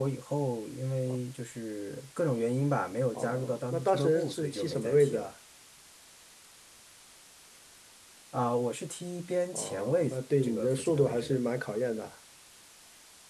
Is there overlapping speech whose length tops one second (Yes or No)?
Yes